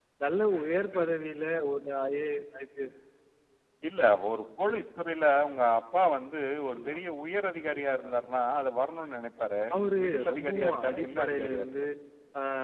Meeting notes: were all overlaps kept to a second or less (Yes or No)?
No